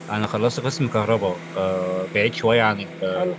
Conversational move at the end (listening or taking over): listening